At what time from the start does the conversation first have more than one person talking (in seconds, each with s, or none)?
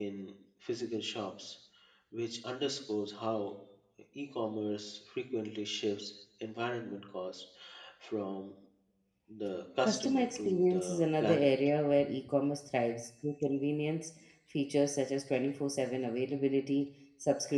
9.8 s